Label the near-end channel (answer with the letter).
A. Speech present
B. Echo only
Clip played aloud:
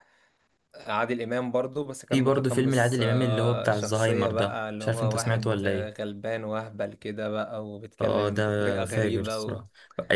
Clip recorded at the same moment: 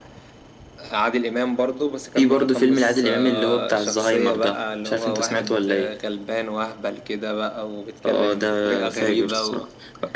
B